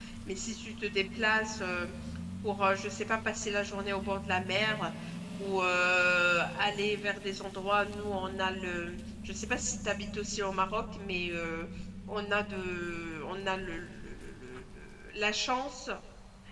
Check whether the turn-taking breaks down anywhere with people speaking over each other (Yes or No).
No